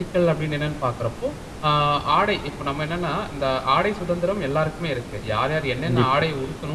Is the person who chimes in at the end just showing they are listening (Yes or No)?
Yes